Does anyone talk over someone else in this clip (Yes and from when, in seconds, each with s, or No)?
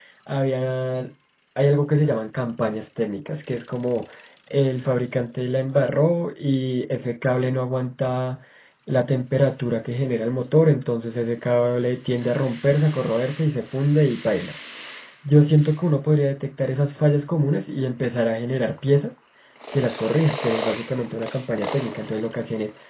No